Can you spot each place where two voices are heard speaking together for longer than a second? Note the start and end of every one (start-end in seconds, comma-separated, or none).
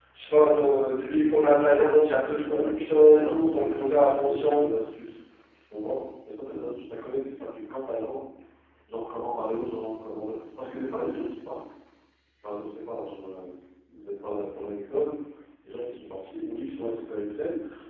2.4-4.7